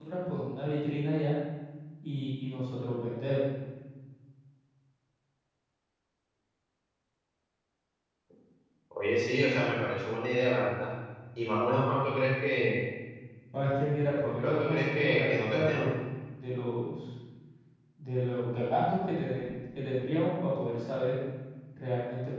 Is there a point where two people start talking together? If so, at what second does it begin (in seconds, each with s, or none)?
14.2 s